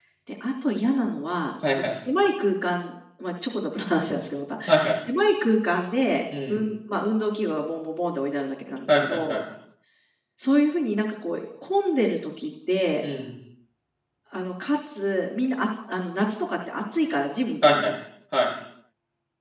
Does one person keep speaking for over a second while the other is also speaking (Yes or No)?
No